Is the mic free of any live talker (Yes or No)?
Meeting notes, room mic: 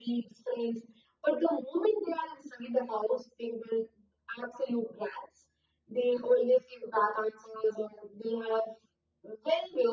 Yes